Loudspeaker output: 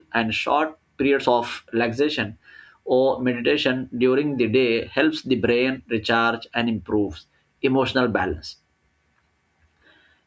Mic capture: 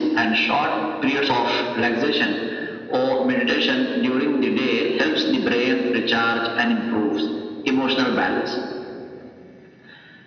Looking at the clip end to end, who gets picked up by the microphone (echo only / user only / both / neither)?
echo only